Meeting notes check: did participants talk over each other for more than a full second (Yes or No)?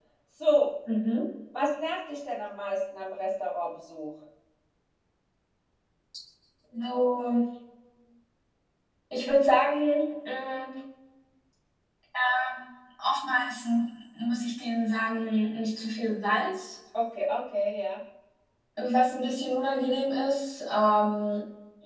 No